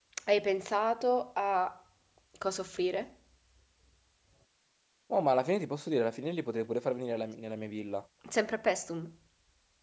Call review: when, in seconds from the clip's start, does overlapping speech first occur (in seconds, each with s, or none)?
none